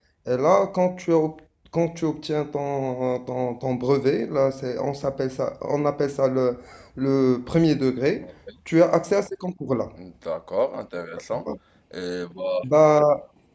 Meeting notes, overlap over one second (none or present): none